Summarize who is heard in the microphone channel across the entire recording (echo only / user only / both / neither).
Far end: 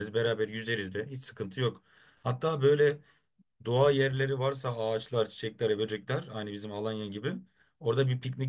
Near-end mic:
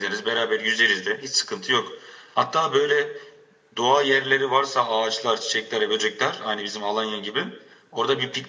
echo only